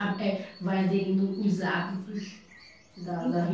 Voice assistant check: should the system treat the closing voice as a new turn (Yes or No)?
No